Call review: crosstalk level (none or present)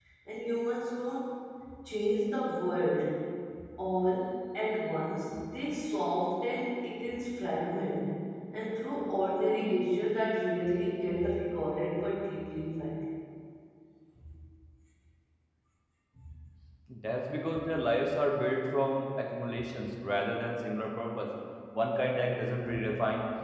none